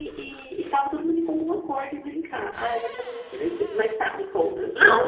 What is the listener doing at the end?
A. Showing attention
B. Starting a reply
B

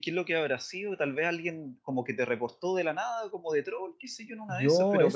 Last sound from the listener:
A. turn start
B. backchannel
B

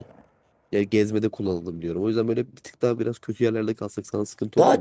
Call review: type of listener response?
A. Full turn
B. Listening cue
A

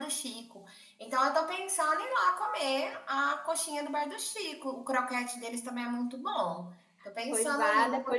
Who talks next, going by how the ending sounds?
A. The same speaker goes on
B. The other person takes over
B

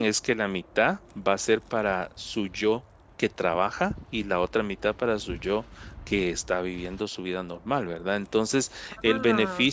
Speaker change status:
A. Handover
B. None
B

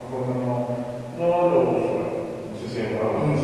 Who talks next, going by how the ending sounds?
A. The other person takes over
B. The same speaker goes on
A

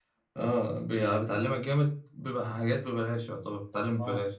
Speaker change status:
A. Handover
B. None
A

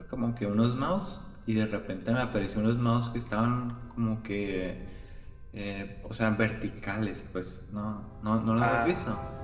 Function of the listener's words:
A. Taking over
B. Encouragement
A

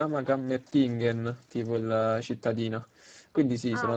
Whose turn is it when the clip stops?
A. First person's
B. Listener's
A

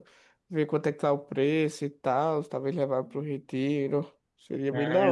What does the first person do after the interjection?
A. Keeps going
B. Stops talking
B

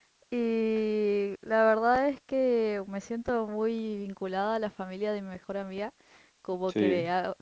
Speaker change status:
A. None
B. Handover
A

